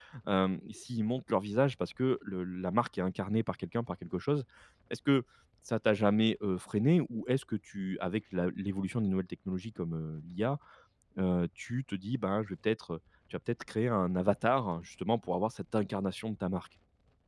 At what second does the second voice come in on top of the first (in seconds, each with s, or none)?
none